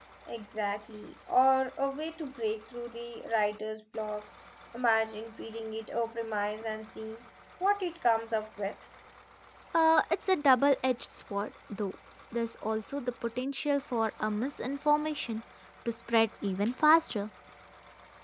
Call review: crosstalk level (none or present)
none